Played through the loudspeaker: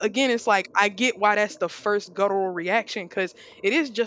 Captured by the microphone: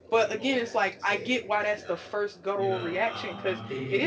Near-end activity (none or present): present